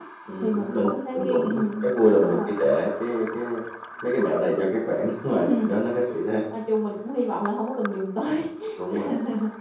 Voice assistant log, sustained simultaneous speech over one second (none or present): present